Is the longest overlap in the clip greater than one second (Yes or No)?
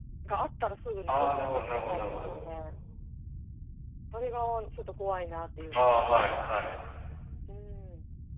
Yes